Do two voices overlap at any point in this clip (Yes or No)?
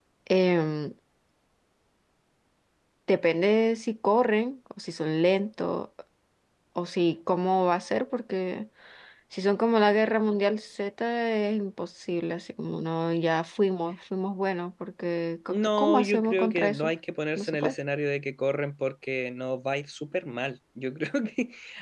Yes